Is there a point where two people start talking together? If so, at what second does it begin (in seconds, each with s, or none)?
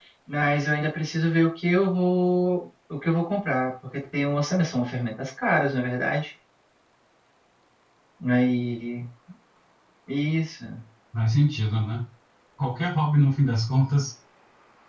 none